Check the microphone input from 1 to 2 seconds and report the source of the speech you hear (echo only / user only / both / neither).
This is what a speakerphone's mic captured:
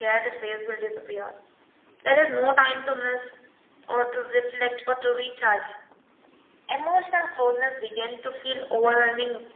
echo only